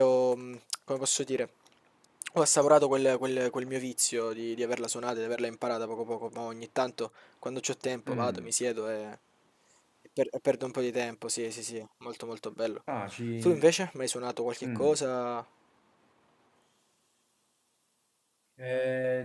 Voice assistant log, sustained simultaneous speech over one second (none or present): none